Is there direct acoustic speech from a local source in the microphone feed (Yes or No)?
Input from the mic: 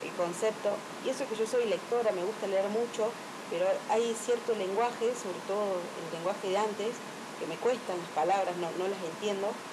No